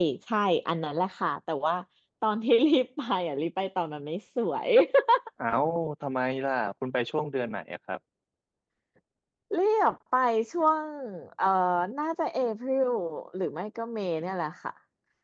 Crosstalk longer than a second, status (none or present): none